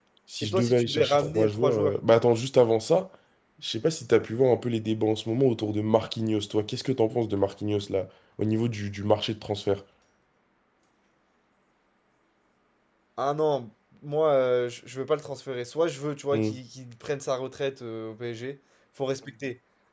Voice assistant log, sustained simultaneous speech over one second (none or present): present